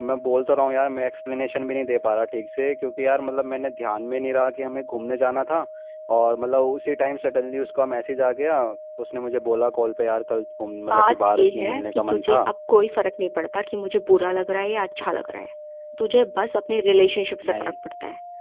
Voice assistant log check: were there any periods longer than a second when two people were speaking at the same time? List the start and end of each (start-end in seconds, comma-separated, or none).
10.9-12.4